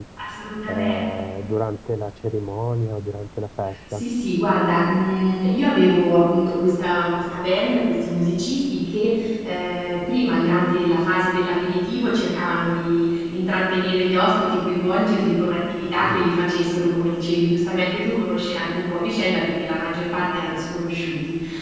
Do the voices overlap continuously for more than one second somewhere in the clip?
No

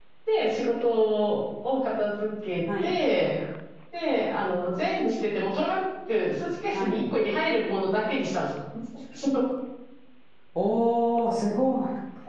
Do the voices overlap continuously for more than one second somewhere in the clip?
No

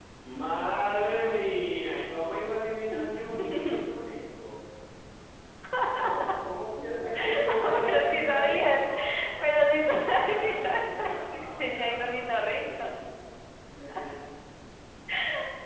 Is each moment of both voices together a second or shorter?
No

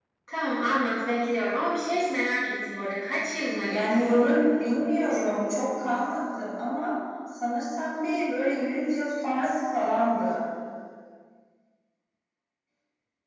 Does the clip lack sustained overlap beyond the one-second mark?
Yes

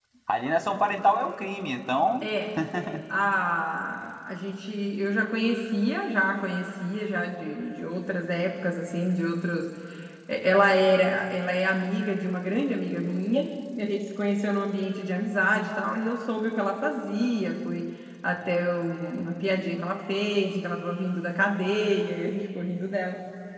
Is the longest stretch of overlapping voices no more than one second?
Yes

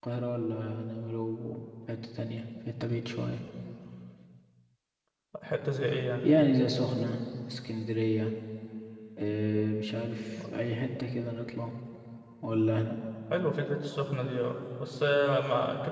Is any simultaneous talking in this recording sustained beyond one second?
No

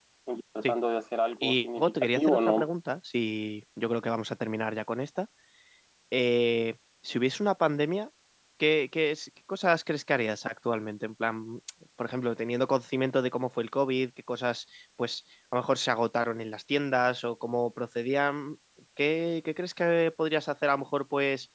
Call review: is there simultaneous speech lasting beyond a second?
Yes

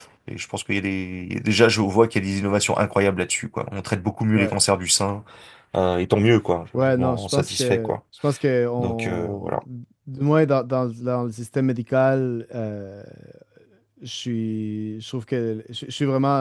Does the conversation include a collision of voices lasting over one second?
Yes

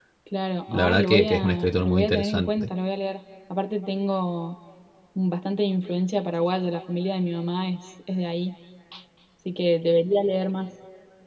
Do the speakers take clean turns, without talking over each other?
No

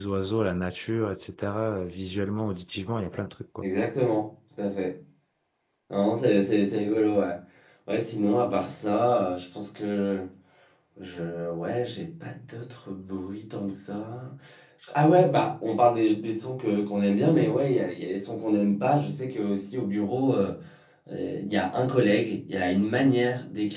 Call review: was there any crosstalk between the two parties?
No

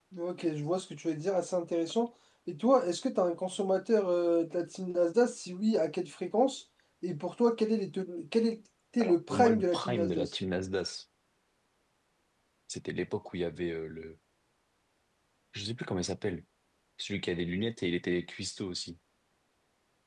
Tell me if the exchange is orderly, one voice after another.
No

